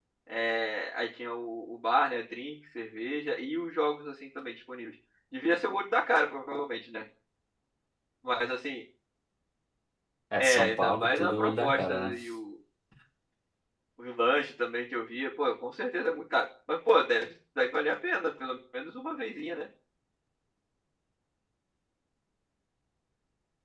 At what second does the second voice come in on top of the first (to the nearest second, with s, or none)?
10 s